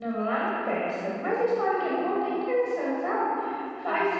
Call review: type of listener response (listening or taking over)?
listening